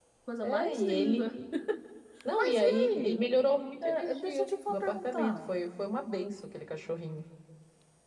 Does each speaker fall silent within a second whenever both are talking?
No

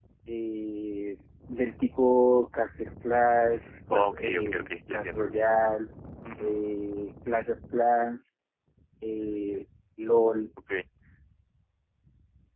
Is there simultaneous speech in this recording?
Yes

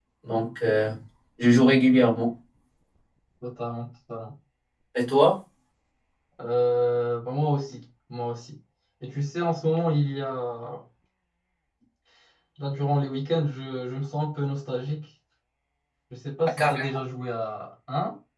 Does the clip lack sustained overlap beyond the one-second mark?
Yes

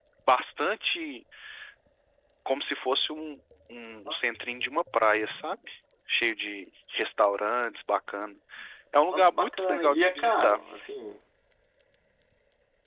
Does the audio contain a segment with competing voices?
Yes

